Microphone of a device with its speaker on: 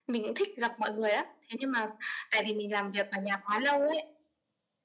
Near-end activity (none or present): none